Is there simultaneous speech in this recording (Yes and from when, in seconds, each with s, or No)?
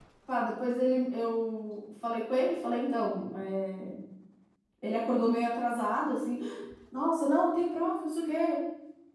No